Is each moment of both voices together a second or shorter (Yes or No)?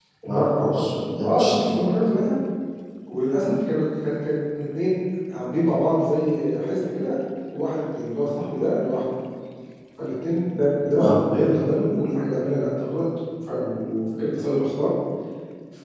Yes